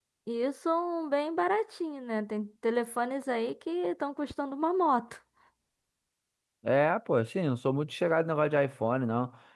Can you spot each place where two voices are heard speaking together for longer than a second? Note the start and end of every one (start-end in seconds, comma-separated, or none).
none